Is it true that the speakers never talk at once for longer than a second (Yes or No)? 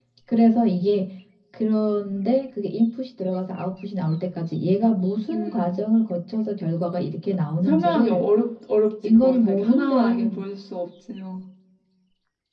No